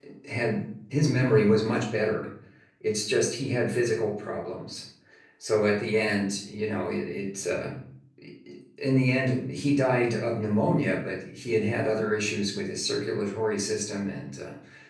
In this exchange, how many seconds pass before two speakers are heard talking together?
none

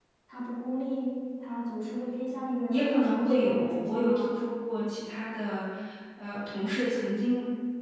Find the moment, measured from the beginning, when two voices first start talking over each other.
2.7 s

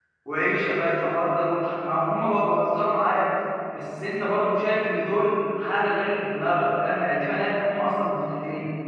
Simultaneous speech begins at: none

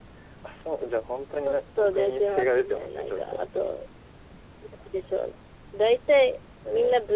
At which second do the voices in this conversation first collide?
1.5 s

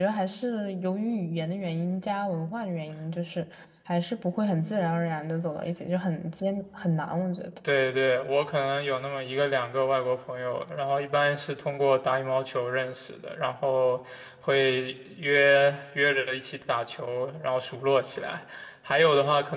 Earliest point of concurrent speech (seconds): none

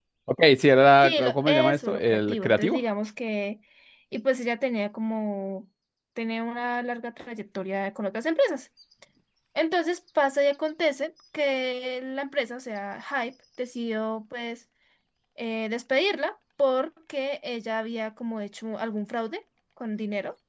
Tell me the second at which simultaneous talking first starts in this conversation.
1.0 s

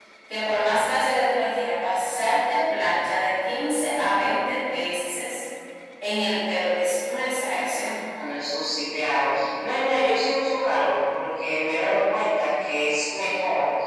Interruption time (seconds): none

